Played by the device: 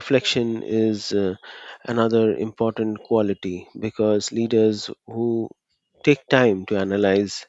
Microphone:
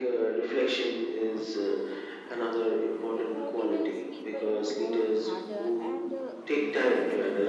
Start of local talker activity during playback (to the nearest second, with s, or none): 3 s